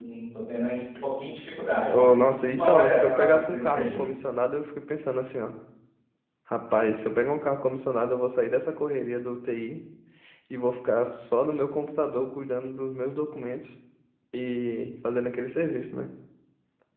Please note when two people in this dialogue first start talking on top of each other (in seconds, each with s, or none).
1.9 s